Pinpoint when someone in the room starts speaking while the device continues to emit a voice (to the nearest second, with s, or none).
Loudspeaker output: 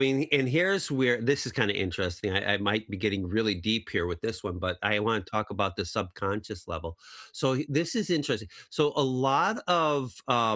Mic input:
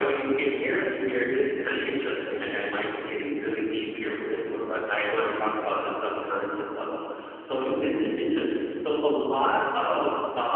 none